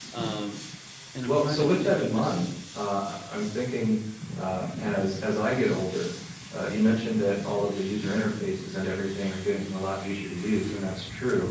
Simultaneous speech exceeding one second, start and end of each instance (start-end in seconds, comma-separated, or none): 1.2-2.5